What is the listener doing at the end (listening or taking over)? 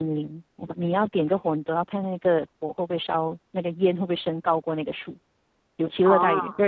listening